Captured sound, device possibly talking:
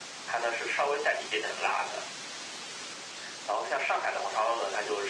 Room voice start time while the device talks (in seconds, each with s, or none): none